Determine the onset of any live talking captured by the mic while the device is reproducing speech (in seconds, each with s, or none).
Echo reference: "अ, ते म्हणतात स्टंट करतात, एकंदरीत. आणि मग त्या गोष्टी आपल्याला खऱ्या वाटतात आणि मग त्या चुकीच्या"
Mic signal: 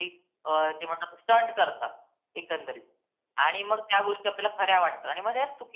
none